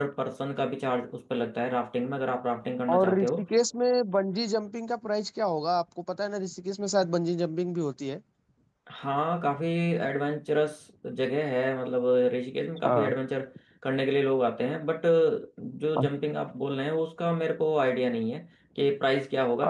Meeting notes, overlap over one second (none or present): none